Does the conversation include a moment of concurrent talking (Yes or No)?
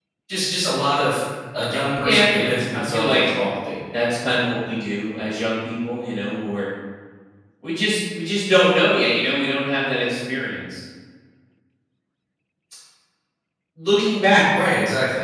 Yes